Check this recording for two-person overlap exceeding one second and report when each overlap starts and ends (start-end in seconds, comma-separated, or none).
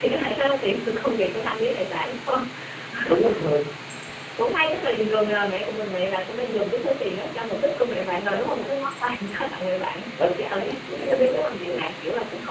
10.5-11.8